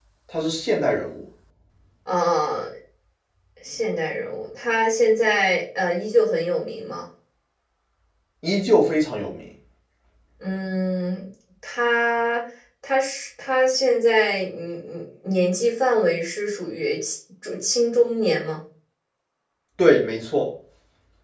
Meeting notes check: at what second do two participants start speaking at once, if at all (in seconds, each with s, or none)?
none